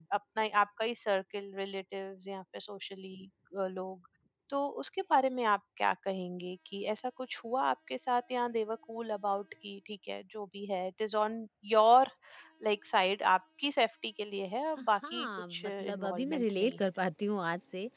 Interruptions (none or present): present